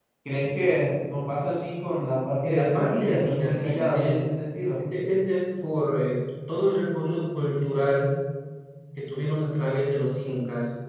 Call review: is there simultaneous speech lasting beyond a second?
Yes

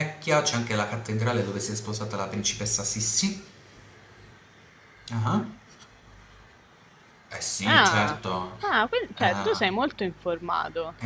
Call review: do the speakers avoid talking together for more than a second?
Yes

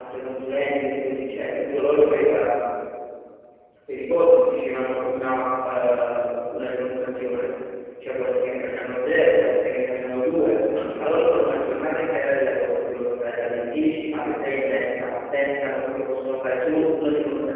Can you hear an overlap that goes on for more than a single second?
No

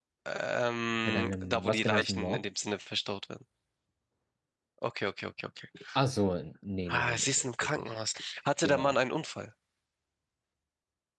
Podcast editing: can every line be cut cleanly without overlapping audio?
No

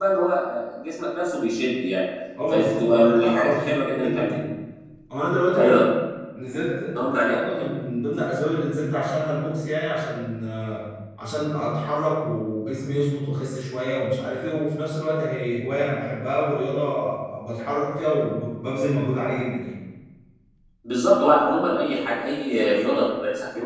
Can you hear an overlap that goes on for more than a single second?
Yes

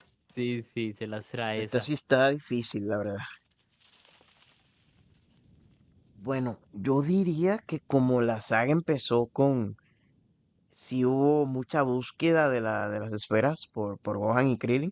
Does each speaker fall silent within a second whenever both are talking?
Yes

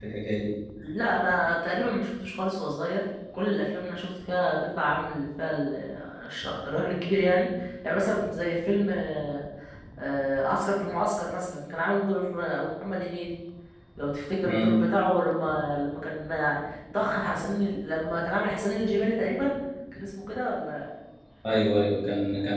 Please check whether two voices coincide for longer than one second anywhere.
No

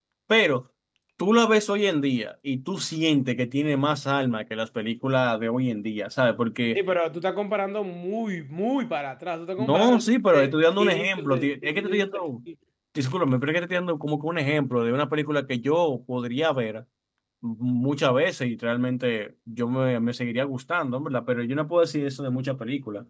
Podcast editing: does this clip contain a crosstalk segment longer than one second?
Yes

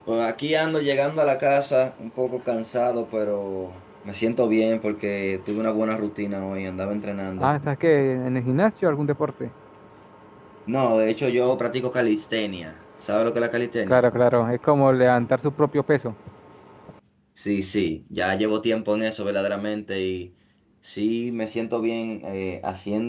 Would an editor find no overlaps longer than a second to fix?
Yes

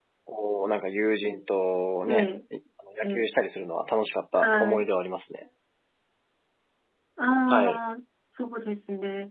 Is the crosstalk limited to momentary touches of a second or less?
Yes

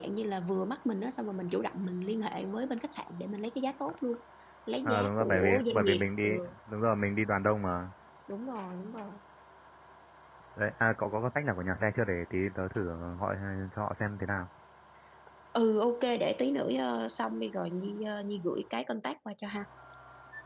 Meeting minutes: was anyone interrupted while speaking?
Yes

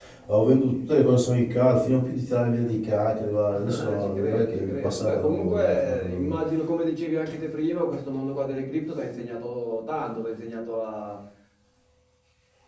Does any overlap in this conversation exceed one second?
Yes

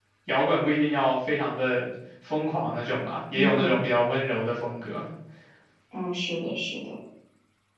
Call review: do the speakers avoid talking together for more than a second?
Yes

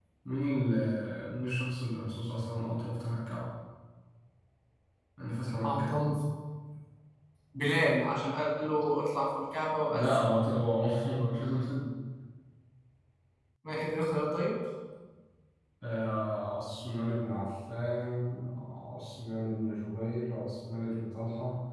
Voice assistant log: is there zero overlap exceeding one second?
Yes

